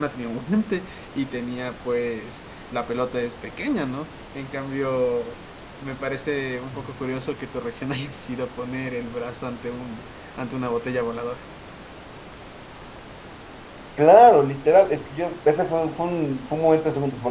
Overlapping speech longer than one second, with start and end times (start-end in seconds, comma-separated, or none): none